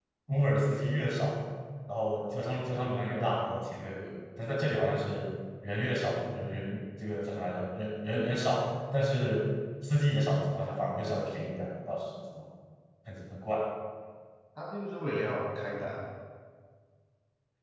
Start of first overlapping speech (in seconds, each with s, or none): none